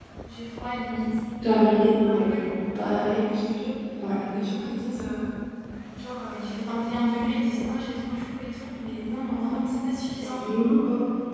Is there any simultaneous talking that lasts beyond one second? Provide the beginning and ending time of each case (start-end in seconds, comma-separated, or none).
none